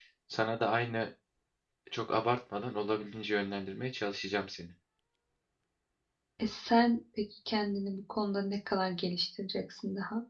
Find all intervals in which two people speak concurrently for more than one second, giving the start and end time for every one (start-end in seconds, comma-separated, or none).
none